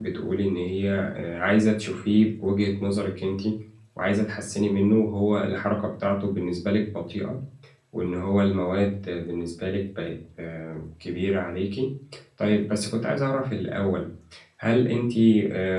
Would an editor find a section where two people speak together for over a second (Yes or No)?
No